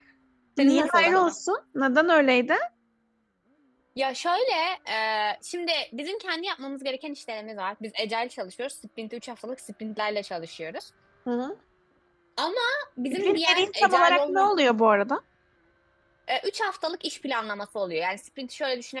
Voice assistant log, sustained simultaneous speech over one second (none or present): present